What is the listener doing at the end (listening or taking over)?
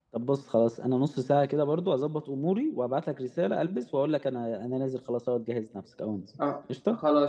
taking over